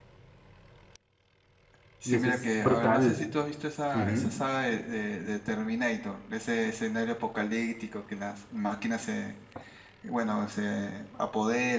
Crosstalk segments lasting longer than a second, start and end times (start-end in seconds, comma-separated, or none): 2.0-3.2